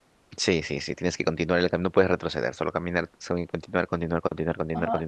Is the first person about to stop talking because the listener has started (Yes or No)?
Yes